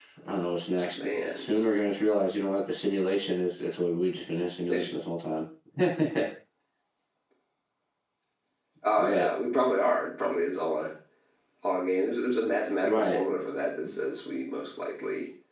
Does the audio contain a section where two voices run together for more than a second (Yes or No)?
No